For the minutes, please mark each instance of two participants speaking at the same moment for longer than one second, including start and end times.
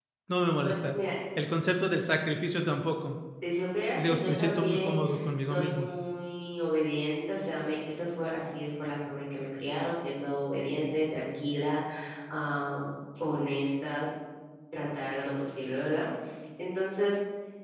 4.0-5.9

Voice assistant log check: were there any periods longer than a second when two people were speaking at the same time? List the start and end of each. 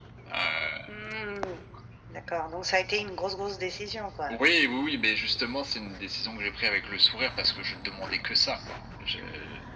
none

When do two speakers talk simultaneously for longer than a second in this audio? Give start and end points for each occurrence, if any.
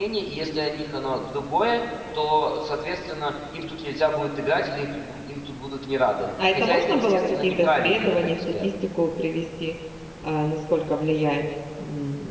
6.5-8.7

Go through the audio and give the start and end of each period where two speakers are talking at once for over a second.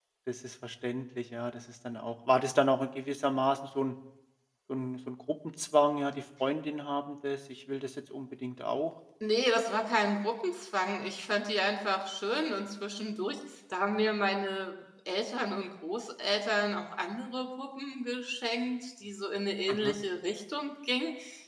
none

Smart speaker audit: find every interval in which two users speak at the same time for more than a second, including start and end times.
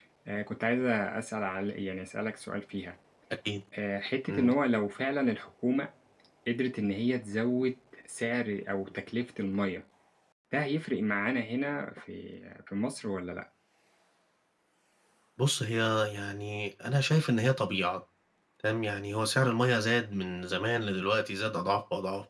none

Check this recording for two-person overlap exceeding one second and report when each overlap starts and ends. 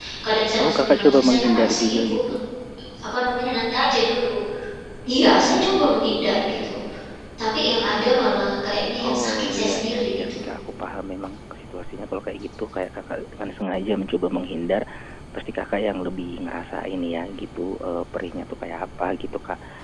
0.6-2.2, 9.0-10.4

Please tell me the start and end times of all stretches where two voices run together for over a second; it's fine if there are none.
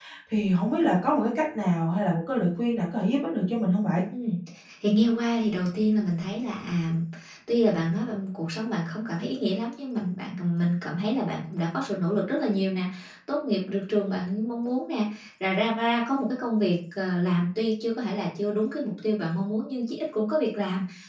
none

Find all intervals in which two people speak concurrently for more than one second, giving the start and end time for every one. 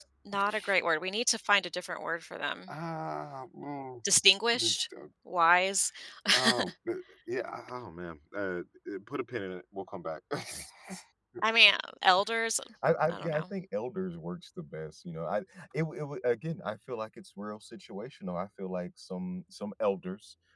none

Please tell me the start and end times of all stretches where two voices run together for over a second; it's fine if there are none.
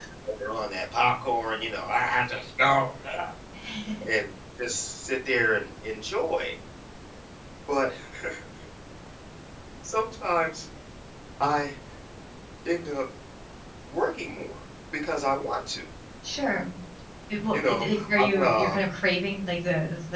17.5-18.8

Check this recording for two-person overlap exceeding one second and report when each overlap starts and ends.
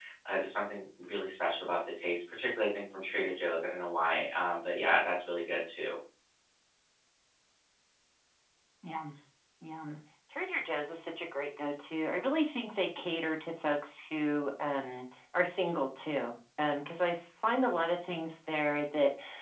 none

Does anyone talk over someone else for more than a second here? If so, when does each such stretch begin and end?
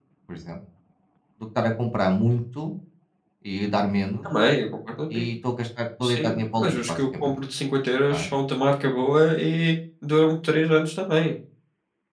6.0-7.3

